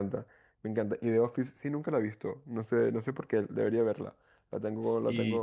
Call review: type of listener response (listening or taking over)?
taking over